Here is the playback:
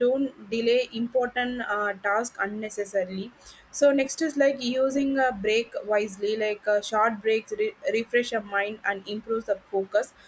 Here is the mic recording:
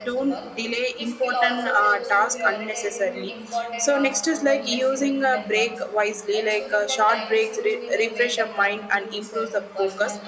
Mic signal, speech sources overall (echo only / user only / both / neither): both